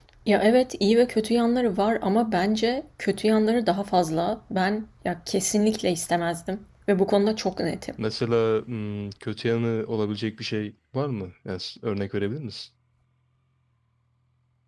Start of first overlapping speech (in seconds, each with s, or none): none